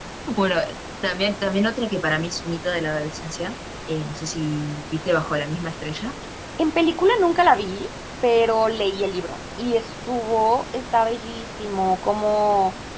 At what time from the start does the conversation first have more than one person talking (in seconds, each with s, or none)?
none